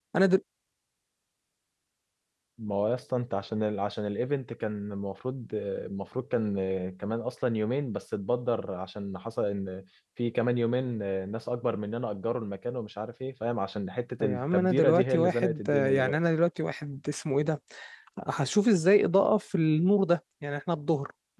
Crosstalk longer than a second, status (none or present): present